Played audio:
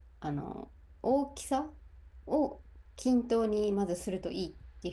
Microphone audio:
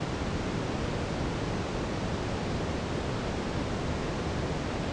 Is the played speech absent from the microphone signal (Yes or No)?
Yes